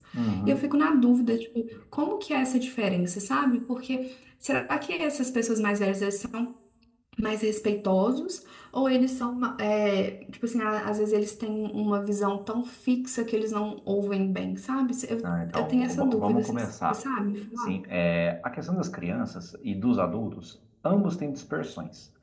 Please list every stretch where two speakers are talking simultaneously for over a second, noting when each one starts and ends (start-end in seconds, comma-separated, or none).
15.2-17.0